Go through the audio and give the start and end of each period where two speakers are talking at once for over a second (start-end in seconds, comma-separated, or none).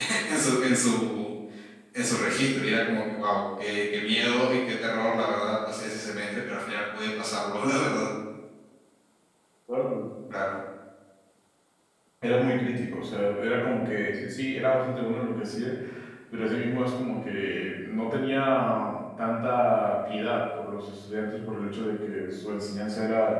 none